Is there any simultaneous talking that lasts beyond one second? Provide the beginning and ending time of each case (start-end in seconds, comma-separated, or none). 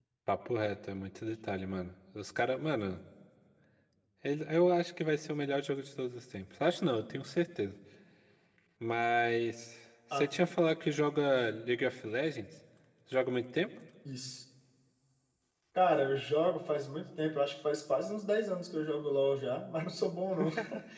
none